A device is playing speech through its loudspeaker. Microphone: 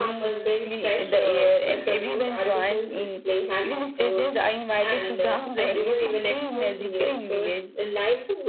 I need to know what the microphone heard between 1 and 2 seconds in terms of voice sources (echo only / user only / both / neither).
echo only